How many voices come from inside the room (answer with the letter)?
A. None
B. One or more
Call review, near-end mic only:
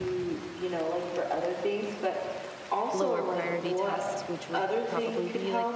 B